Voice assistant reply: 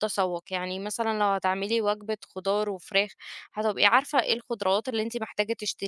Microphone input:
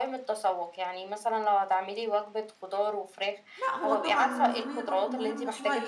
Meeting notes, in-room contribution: present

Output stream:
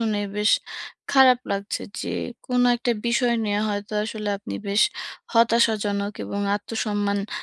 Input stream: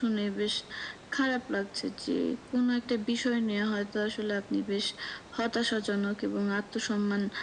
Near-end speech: none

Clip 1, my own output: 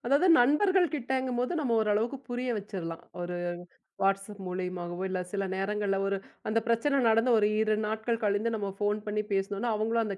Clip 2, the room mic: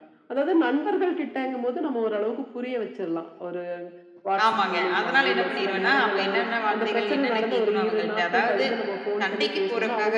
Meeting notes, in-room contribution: present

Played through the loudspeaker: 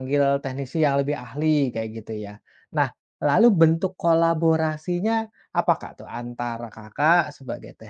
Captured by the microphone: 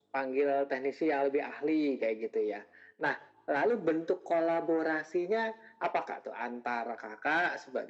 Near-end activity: none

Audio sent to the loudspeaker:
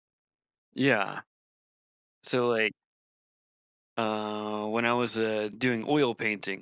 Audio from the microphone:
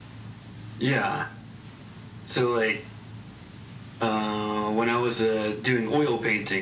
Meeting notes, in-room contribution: none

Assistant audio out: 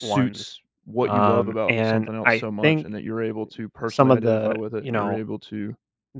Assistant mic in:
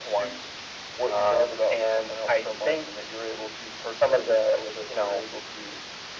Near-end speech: none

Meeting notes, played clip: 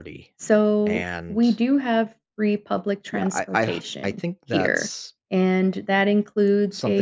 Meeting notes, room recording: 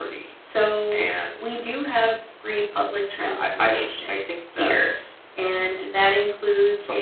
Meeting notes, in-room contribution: none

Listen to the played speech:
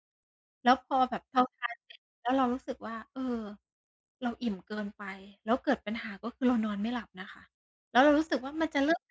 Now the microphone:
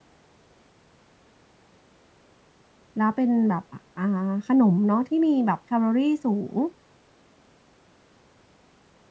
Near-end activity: present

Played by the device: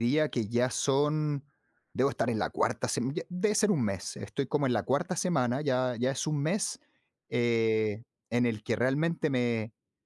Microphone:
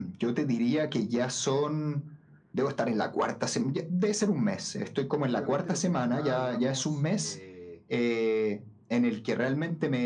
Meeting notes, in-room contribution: present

